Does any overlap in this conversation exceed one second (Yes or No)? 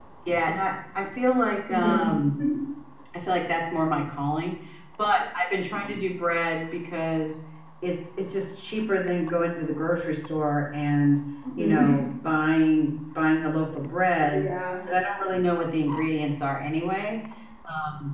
No